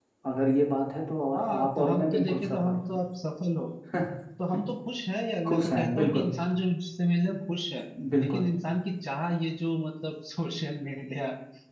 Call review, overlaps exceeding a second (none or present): present